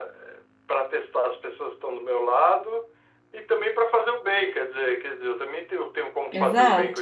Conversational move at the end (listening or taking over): taking over